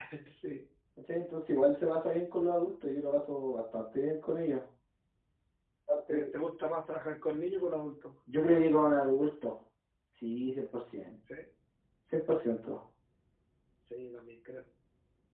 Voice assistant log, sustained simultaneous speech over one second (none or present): none